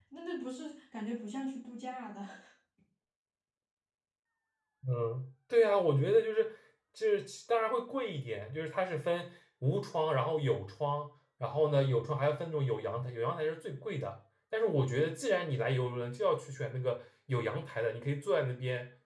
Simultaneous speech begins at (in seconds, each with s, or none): none